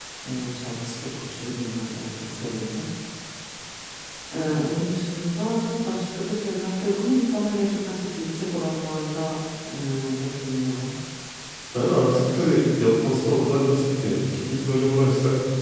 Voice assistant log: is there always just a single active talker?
Yes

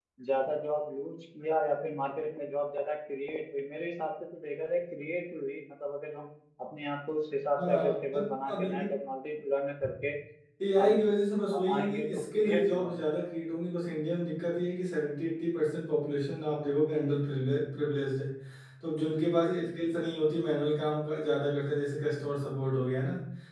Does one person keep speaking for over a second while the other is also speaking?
Yes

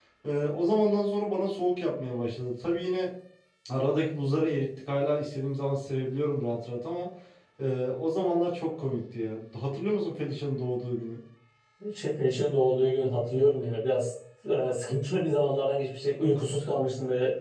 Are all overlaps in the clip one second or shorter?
Yes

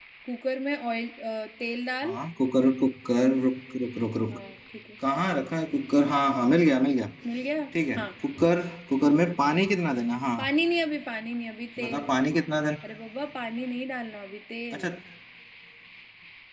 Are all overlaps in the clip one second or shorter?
Yes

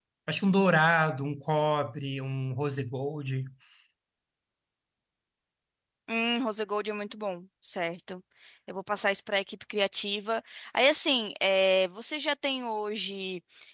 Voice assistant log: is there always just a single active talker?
Yes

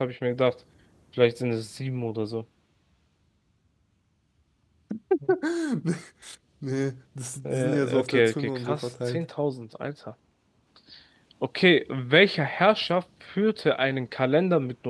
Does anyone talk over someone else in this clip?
Yes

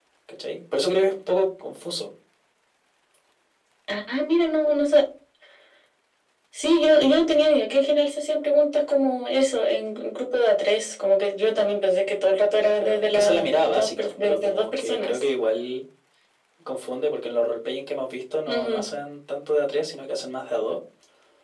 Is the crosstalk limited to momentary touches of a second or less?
No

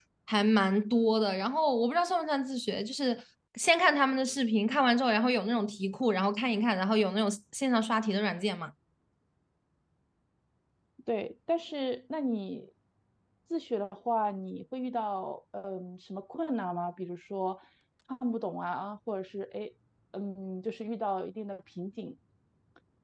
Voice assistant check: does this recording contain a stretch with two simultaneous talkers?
No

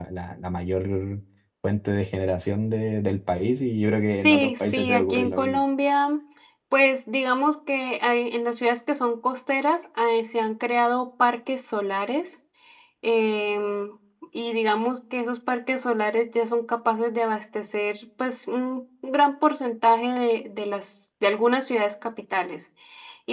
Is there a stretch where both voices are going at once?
Yes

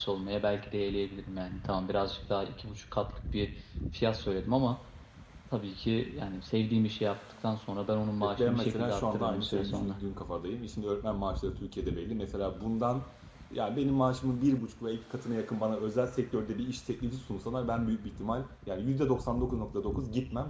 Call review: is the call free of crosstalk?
No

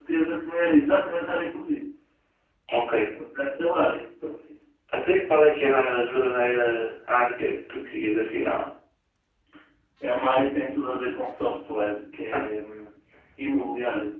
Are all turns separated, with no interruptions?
Yes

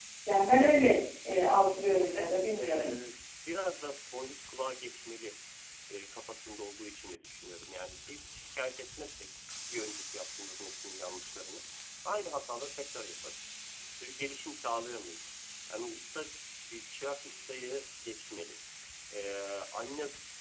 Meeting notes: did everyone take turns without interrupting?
No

